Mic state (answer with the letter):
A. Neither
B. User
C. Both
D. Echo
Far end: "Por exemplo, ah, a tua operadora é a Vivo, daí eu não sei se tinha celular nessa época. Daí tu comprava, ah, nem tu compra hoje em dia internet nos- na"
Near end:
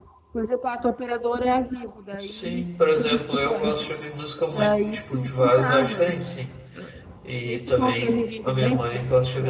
C